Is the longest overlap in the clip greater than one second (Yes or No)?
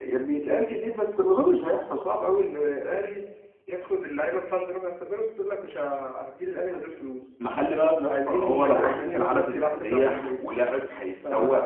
Yes